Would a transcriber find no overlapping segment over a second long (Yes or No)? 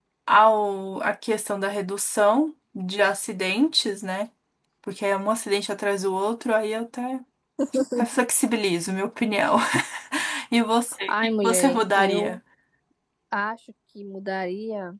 No